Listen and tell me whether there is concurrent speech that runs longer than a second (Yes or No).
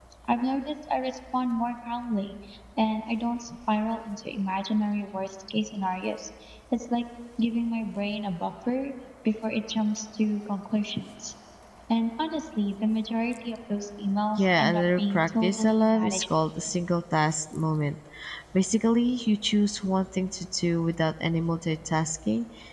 Yes